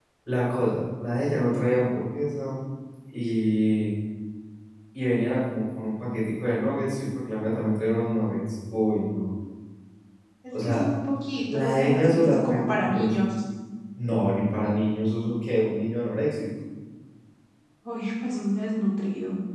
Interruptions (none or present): present